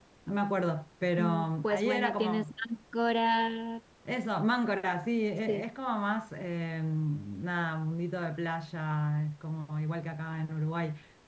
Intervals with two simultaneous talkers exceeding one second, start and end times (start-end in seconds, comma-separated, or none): 1.2-2.4